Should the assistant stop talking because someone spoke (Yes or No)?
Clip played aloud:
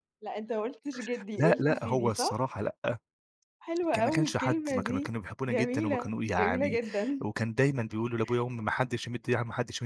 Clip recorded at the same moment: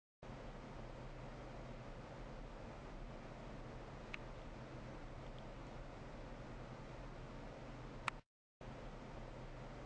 No